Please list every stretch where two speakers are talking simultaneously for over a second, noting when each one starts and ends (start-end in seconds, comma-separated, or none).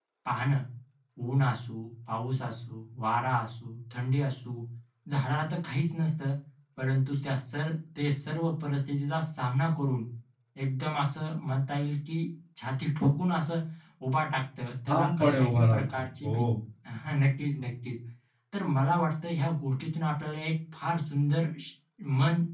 14.9-16.4